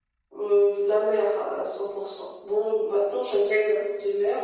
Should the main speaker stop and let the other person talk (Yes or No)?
No